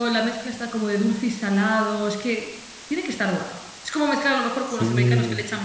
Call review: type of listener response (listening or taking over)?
listening